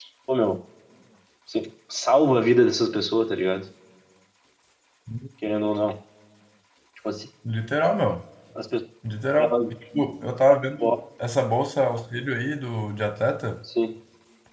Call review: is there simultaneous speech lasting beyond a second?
No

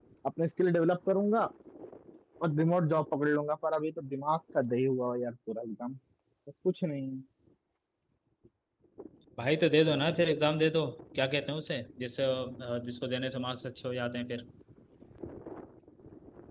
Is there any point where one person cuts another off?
No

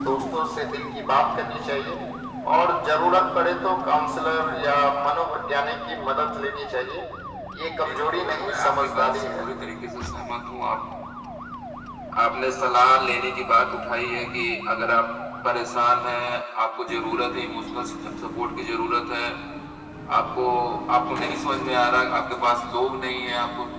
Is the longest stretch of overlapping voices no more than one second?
No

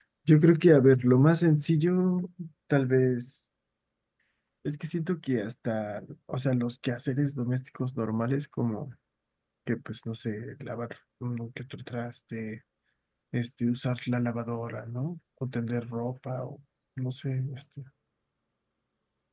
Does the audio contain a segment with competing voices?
No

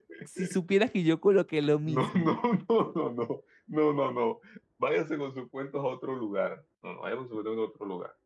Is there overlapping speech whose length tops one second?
No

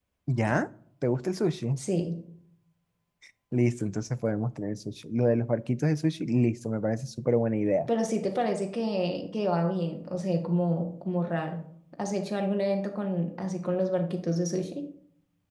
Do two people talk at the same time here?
No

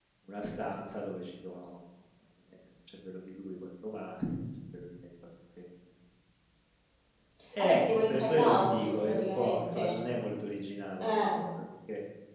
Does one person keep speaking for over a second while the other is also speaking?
Yes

